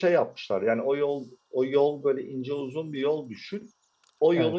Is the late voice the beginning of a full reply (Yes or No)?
No